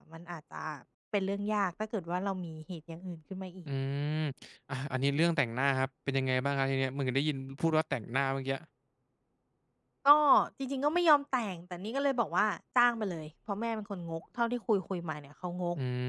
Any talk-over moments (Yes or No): No